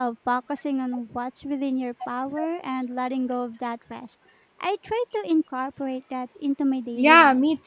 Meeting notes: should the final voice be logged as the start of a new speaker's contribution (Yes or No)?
Yes